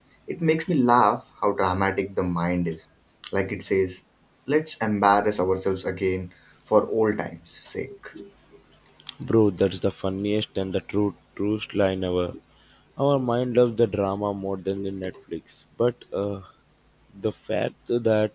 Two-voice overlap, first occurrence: none

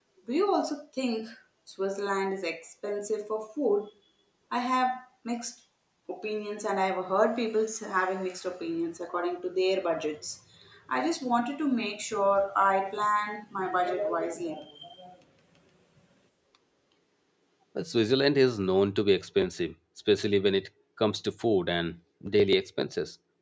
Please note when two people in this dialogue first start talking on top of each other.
none

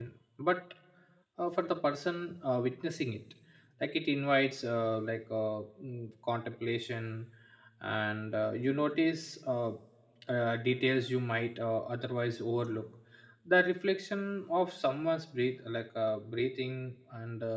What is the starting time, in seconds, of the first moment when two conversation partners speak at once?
none

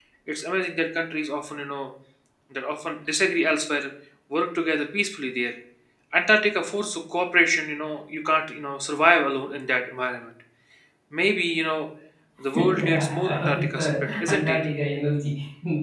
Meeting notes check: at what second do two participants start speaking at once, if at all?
12.6 s

